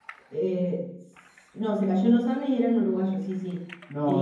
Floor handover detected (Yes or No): Yes